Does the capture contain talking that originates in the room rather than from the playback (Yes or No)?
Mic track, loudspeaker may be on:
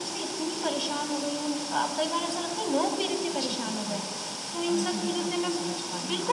No